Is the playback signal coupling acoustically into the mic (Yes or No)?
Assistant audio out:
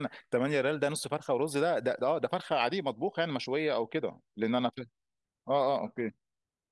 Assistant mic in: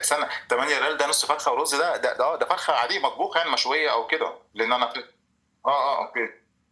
Yes